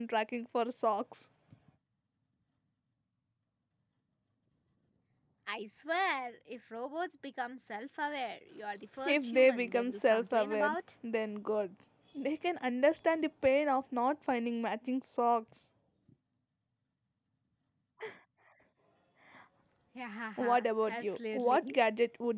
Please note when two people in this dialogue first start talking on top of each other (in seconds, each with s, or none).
9.0 s